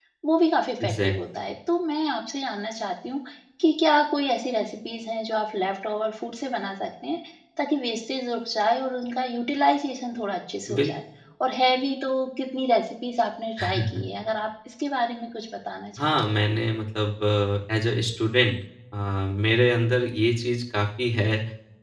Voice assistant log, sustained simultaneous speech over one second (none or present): none